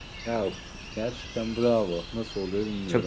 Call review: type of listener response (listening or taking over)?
taking over